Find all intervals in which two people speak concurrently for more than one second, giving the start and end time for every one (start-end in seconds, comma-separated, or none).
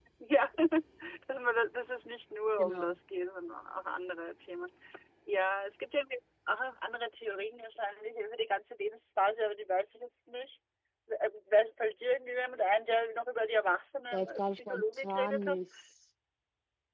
14.1-15.6